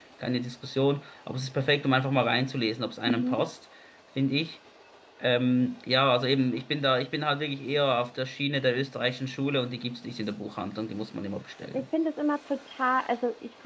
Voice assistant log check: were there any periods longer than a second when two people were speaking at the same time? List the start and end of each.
none

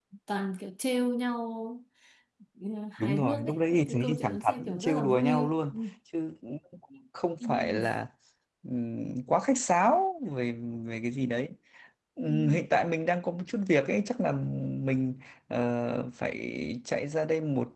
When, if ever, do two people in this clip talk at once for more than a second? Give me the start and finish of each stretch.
3.0-5.8

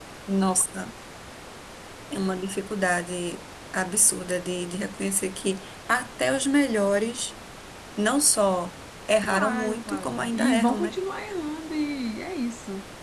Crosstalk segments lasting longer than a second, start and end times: 9.2-10.9

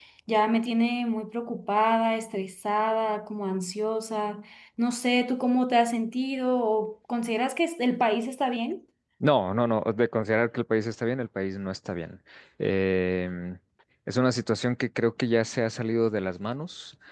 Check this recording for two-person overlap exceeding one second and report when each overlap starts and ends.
none

